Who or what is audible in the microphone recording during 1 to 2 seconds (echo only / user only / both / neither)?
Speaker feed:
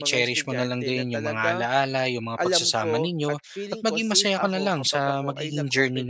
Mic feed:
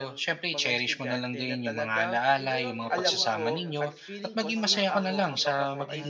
echo only